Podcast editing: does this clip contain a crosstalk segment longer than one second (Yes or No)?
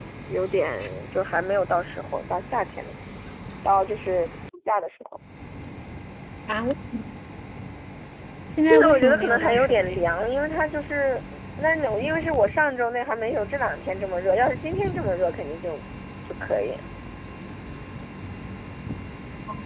Yes